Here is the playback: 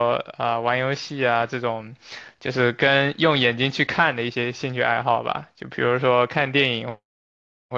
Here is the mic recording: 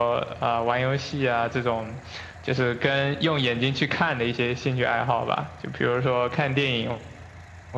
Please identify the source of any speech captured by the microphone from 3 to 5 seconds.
echo only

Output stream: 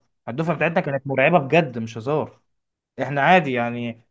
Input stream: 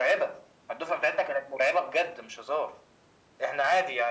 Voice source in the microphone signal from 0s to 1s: echo only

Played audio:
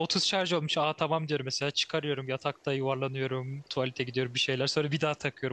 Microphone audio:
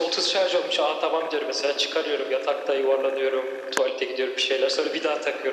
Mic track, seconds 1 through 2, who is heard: echo only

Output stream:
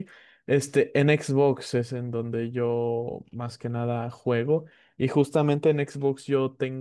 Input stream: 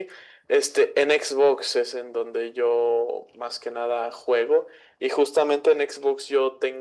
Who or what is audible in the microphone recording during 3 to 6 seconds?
echo only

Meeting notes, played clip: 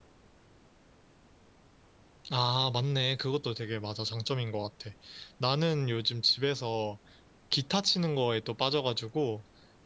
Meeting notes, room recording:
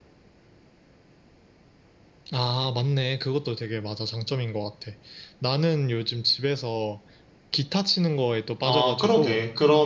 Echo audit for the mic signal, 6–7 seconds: echo only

